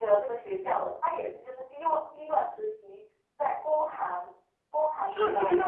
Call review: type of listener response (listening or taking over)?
taking over